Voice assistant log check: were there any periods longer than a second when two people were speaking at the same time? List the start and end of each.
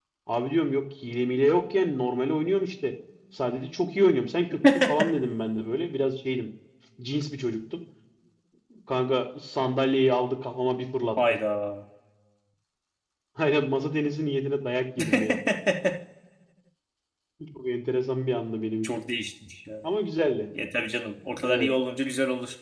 none

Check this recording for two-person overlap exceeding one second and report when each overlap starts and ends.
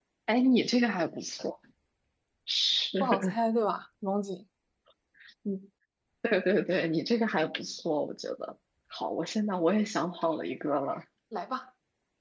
none

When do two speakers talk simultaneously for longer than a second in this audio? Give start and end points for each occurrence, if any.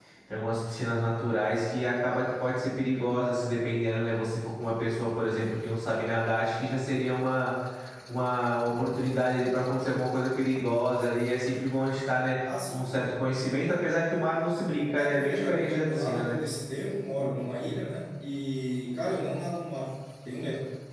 15.0-16.4

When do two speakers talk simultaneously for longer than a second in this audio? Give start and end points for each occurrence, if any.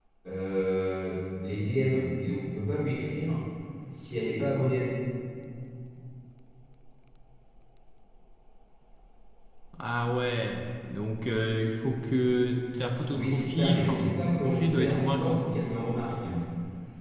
13.1-15.6

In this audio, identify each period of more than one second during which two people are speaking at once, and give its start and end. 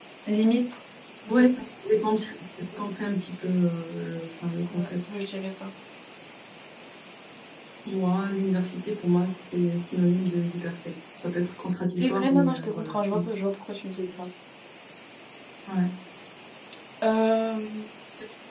12.0-13.2

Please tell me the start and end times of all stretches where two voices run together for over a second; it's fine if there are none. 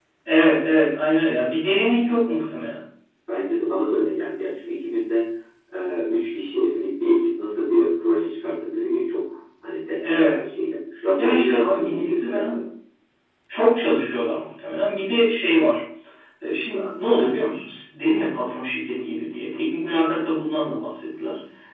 11.2-12.5

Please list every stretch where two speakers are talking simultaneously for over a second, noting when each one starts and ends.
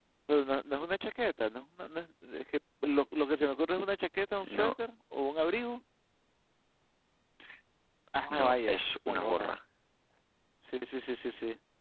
8.3-9.5

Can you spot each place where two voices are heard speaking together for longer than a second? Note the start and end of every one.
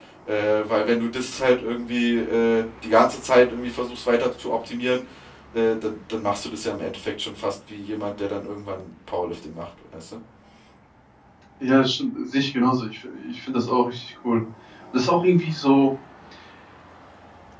none

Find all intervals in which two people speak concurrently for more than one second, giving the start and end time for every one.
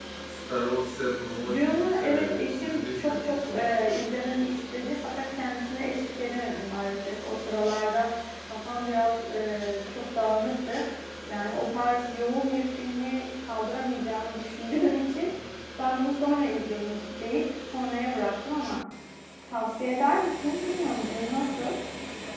1.5-3.7

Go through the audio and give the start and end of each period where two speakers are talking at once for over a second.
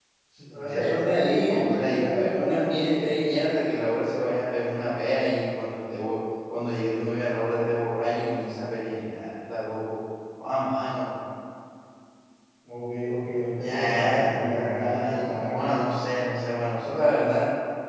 0.5-3.1, 13.6-15.8

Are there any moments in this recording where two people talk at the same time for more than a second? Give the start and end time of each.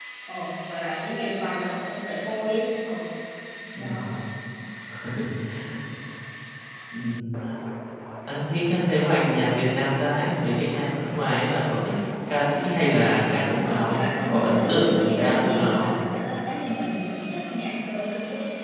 13.6-15.9

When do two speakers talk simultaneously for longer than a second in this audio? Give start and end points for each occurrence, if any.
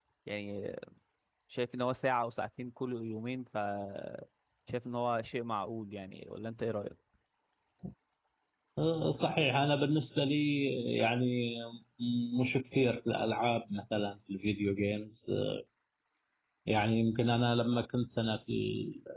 none

